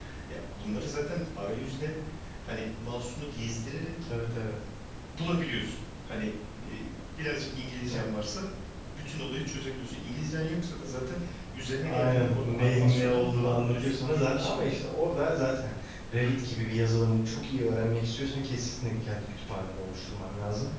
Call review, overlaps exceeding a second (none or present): present